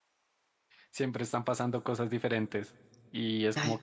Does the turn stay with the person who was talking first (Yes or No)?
Yes